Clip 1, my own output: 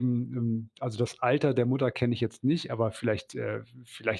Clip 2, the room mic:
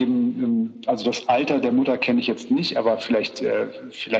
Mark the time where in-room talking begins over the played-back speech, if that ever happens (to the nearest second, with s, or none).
none